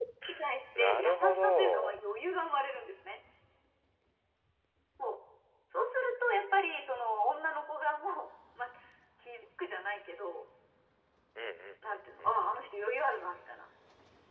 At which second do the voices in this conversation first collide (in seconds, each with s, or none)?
0.8 s